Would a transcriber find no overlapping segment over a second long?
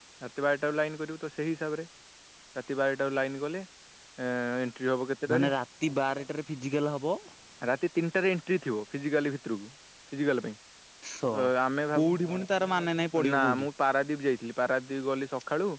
Yes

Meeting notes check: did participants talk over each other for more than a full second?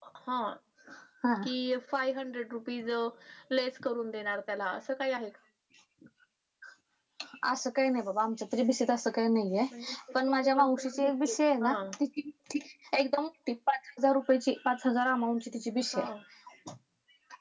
Yes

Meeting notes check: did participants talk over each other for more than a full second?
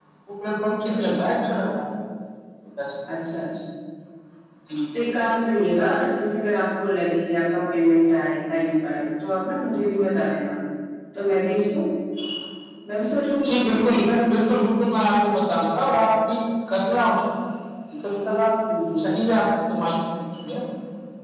No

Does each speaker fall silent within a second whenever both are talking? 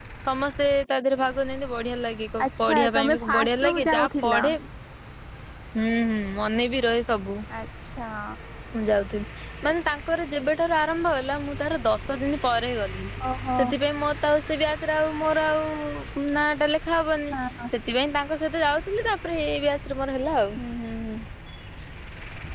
No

